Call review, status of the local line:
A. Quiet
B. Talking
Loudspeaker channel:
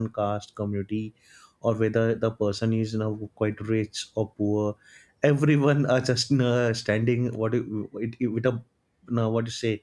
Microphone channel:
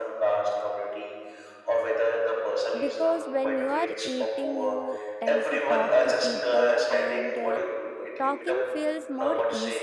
B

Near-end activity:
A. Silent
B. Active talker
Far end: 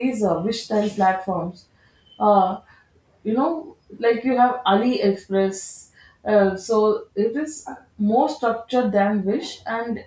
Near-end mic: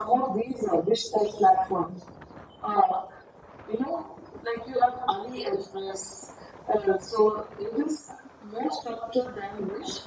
A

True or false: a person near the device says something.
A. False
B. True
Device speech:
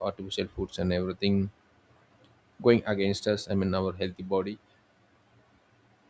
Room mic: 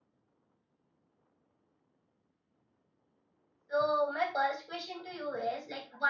B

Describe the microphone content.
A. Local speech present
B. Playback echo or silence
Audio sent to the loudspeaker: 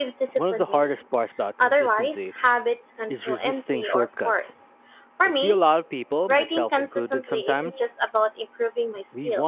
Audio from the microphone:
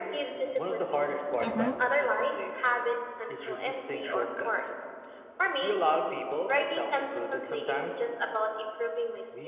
A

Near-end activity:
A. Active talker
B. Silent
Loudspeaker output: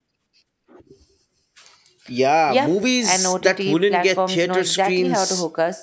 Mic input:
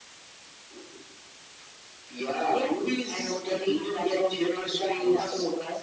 B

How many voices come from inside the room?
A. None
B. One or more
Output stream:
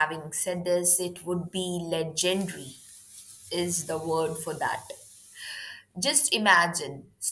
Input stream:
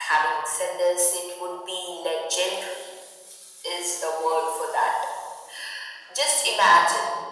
A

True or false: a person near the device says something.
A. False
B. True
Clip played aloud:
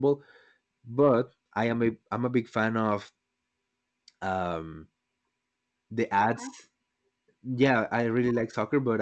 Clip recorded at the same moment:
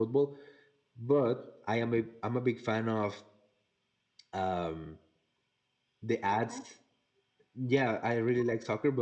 A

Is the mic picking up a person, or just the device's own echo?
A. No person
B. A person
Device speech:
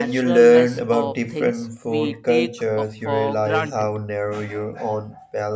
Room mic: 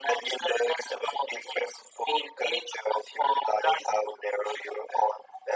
A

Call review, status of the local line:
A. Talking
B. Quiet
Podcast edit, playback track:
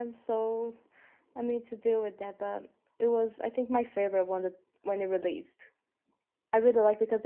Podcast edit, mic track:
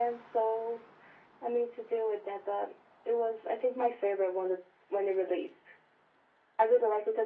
B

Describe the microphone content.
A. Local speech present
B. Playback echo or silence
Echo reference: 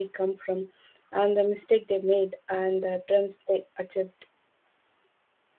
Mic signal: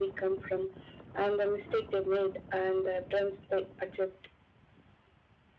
B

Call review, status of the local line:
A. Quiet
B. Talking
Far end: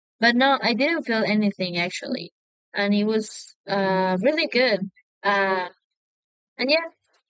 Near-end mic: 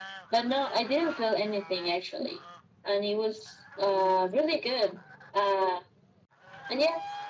A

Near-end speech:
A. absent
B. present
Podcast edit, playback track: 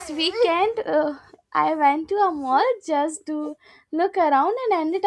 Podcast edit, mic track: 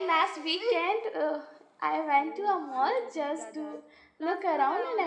B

